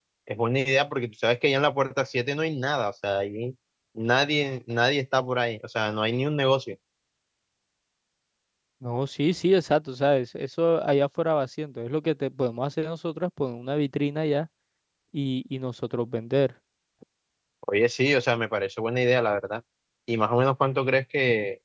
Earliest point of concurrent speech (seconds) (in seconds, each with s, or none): none